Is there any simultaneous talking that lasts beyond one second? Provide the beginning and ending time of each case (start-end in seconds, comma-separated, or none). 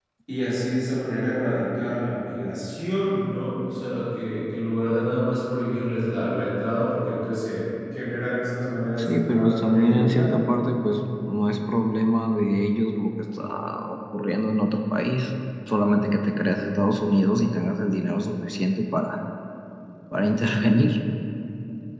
9.0-10.3